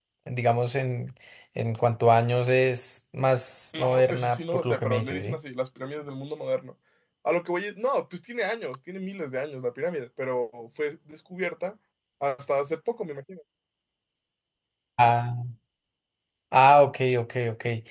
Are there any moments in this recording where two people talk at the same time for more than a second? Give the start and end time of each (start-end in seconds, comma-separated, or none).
3.8-5.4